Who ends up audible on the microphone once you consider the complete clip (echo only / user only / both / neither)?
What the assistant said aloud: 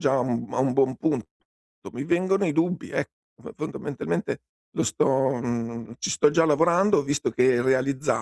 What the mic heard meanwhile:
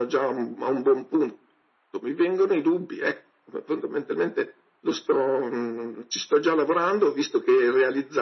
echo only